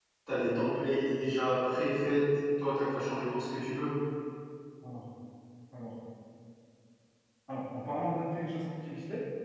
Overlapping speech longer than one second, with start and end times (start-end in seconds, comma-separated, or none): none